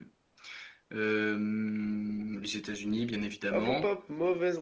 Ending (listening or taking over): taking over